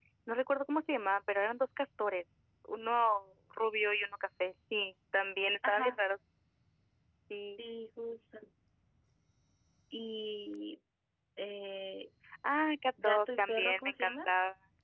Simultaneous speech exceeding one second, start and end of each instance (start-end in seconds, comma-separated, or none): 13.0-14.3